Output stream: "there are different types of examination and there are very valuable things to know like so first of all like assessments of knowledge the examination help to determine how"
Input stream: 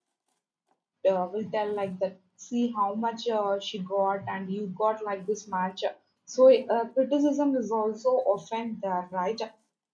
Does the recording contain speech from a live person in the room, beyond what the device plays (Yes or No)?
Yes